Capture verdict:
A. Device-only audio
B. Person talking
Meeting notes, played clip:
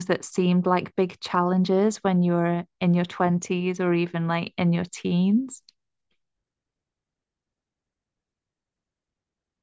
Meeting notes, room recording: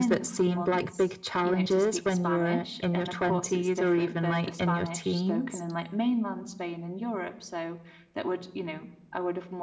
B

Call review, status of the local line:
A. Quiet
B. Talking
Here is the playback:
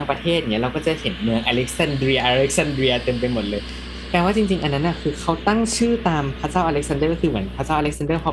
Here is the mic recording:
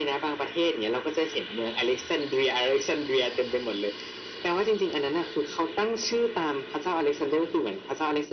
A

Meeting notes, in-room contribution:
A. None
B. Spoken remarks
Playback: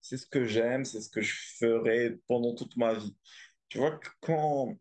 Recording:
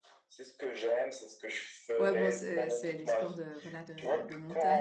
B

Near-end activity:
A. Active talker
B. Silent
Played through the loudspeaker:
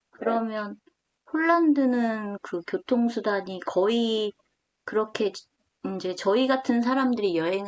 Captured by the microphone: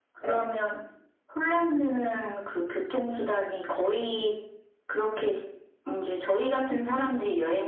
B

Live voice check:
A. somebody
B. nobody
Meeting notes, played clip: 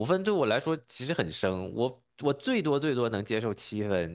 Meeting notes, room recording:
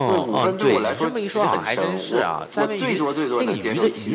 A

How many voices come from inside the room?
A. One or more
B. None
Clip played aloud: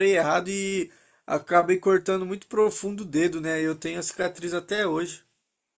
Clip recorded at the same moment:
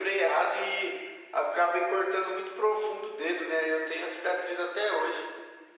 B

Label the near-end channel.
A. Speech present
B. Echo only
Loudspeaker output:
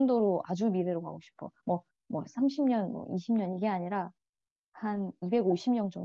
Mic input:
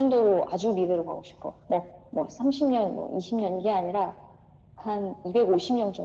B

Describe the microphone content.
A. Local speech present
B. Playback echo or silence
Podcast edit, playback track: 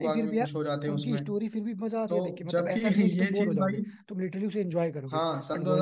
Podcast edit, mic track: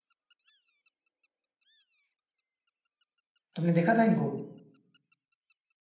A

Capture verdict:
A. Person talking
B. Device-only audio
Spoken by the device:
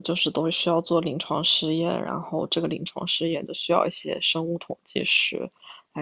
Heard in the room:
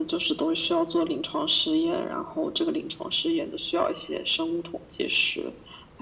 B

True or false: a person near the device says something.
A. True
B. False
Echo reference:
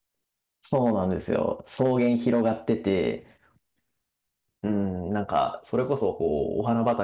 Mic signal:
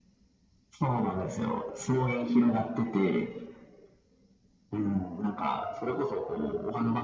B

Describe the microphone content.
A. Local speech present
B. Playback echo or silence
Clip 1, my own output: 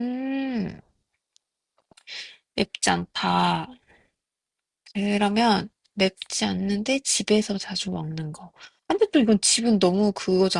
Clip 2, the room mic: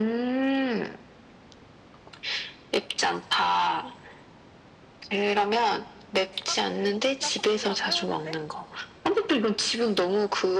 A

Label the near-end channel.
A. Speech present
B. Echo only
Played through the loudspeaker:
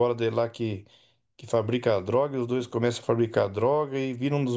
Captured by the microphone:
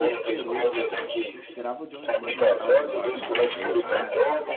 A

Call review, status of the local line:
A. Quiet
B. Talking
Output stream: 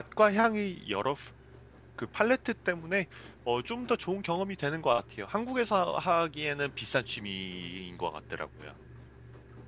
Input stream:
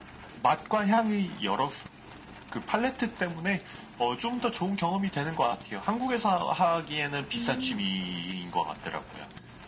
B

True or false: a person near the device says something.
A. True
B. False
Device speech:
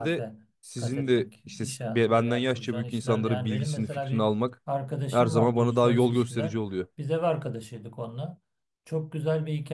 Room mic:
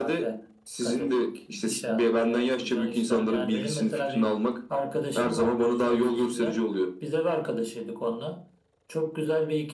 B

